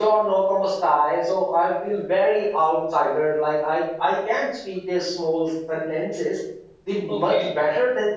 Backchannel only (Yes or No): Yes